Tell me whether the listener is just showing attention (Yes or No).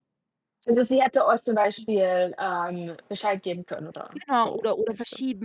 No